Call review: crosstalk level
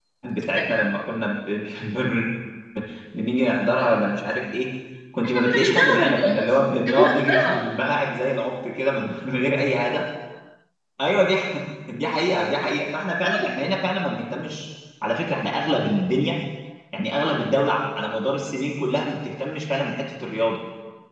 present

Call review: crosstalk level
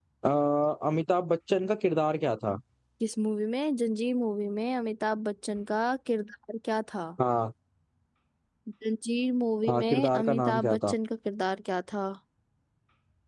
present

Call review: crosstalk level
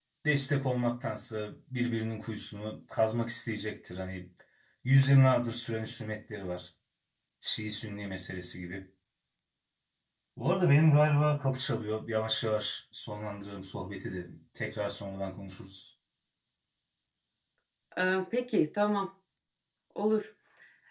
none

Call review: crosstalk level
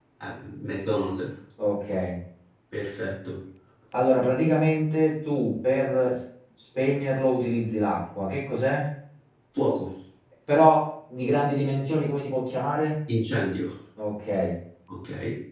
none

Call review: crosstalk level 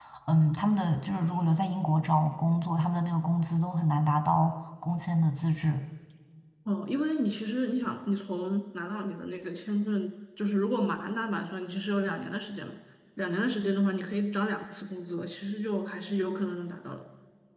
none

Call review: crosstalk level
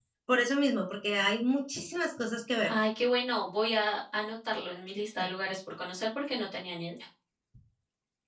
none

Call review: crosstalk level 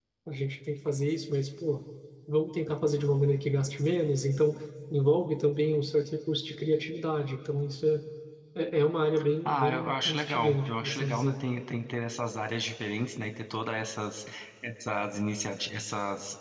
present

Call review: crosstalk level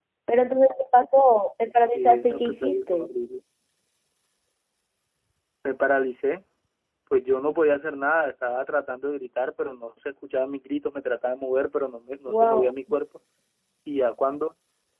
present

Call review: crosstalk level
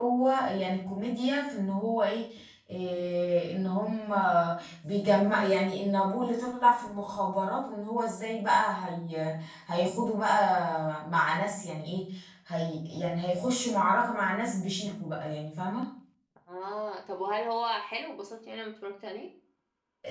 none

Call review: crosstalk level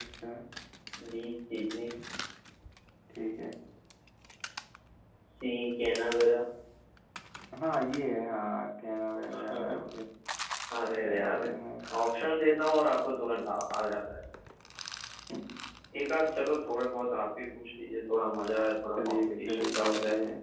present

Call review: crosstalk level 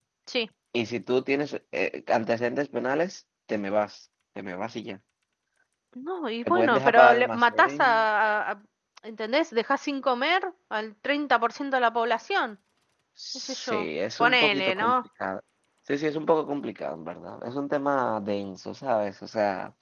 present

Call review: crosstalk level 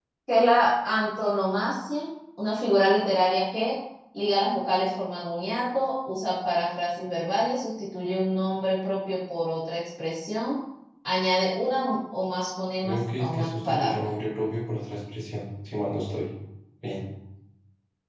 present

